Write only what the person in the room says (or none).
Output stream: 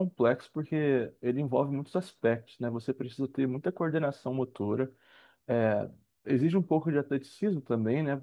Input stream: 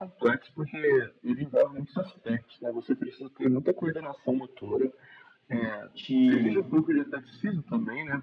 te